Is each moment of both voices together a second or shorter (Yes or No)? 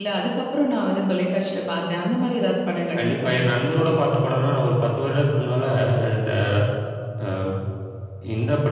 Yes